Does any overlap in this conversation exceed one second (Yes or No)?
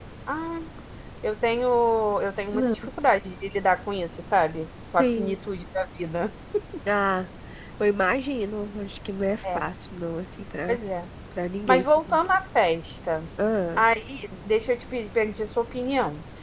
No